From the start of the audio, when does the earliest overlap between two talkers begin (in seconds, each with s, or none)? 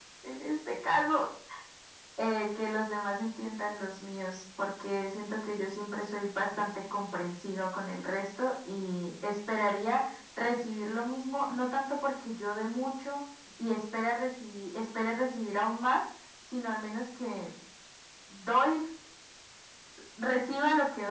none